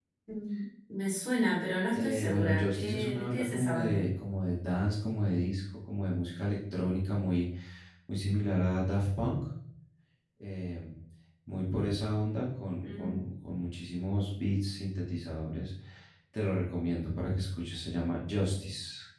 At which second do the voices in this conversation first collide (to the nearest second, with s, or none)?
2 s